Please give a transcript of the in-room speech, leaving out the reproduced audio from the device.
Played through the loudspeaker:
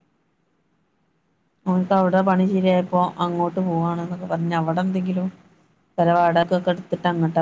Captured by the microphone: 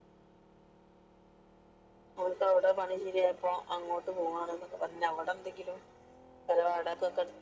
none

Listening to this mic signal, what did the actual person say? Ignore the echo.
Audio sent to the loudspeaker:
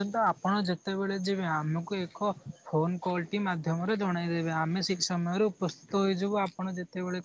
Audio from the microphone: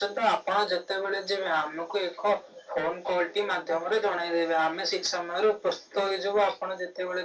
none

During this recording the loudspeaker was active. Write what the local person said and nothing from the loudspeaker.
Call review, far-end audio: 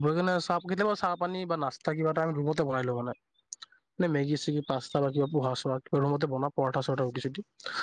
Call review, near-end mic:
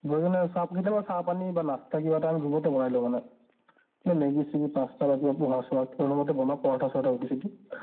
none

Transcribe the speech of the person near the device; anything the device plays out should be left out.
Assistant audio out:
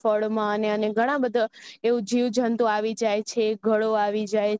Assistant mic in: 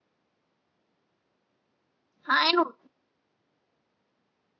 હા એનું

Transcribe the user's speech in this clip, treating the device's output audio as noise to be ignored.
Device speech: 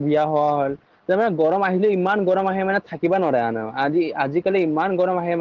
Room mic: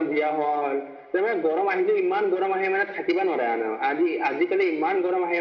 none

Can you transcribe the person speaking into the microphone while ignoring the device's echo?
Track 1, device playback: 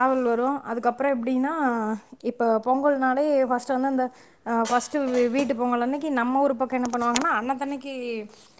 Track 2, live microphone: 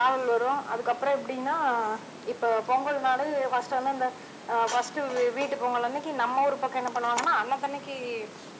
none

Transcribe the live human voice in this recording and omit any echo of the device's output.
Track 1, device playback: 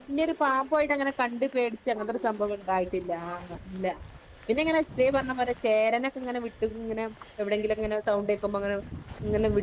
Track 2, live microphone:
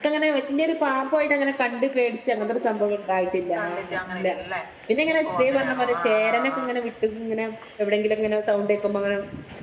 കണ്ടിട്ട് അങ്ങനെയല്ലേ ഓ അങ്ങനെയാണോ ആ ആ ആ

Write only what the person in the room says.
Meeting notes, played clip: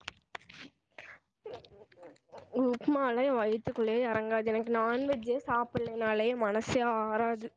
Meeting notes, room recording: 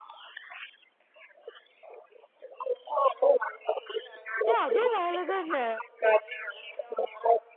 ஏ அதுவு வேலதான

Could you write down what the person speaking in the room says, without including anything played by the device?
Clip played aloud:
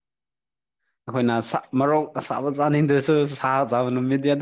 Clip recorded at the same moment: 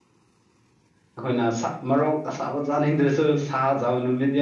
none

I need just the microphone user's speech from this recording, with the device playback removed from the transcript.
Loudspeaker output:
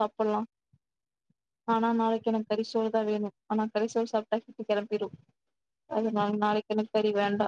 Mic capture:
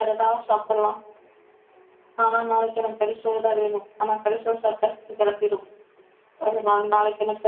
none

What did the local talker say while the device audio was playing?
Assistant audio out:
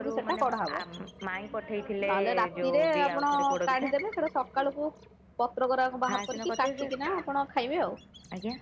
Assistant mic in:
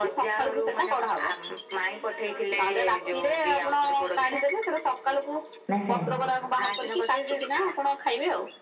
ନାଇଁ ସାଇନ୍ସ।

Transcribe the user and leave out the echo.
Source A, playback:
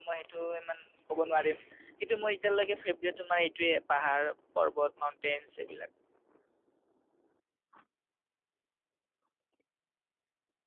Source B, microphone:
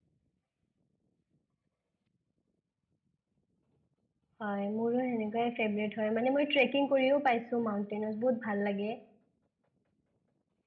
হয় মোৰো হেনেকোৱাই ফ্ৰেব্ৰেট হয় মানে মই ট্ৰেকিং কৰিও পাইছোঁ মাউন্টেইনত বহুত ভাল লাগে।

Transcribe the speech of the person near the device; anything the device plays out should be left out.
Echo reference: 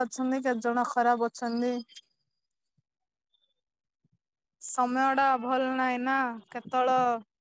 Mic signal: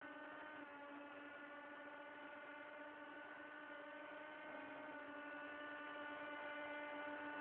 none

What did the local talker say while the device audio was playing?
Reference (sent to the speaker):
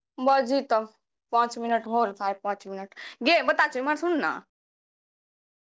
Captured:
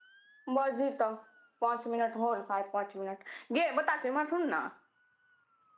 none

